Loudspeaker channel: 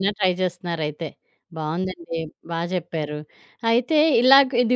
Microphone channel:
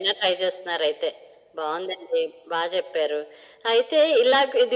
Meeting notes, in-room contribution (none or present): none